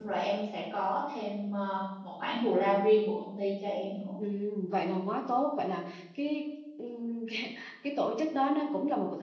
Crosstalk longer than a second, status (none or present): none